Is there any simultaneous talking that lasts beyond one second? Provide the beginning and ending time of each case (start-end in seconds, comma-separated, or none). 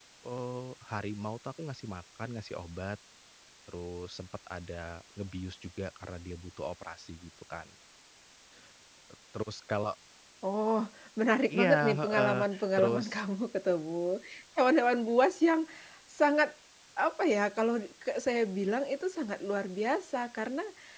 11.5-13.1